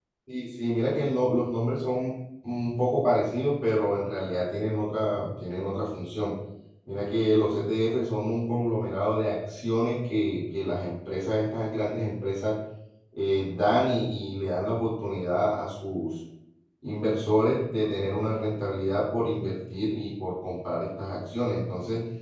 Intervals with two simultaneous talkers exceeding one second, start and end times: none

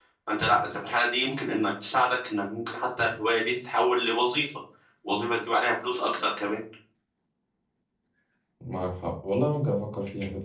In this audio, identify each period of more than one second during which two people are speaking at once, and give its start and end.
none

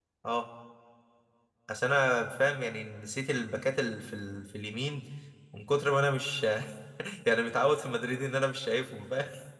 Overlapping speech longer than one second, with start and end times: none

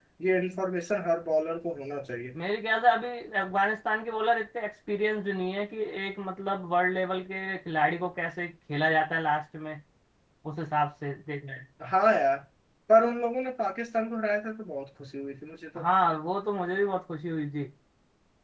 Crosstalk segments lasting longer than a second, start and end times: none

